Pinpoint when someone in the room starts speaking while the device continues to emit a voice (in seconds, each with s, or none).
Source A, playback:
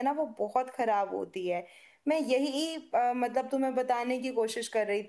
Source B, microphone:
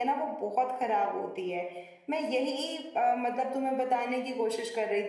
none